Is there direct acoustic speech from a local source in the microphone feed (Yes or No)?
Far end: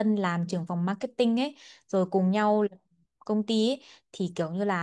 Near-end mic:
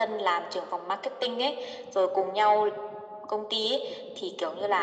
No